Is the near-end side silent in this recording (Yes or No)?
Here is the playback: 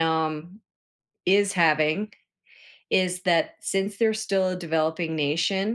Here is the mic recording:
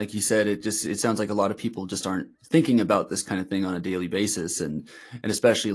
No